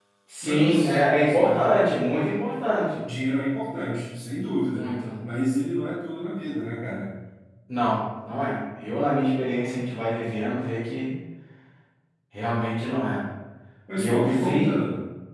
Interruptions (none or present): present